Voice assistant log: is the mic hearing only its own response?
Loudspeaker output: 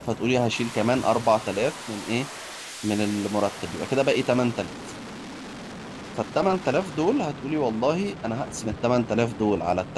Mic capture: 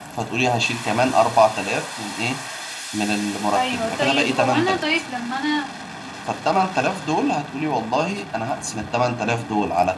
No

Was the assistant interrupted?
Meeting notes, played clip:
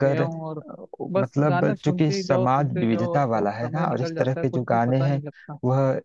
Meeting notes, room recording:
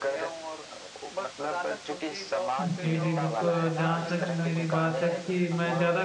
Yes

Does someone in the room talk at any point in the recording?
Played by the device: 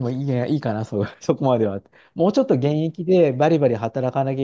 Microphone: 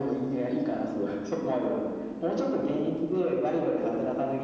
No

